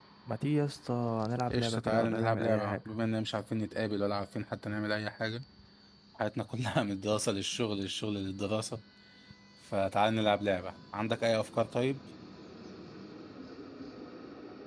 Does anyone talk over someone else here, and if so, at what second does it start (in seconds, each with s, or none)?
1.5 s